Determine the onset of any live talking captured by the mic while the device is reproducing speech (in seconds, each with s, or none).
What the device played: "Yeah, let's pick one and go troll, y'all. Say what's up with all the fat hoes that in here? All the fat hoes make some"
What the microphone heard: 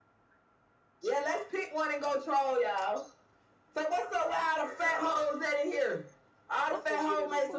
6.7 s